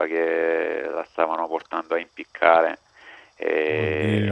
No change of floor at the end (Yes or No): Yes